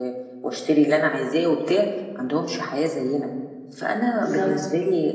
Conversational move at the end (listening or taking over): listening